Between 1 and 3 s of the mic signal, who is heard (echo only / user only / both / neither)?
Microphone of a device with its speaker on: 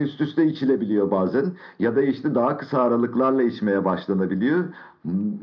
echo only